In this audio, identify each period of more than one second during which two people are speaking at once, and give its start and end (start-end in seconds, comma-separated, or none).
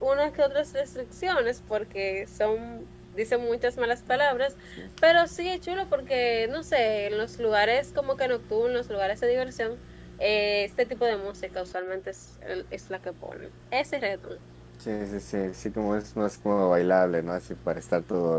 none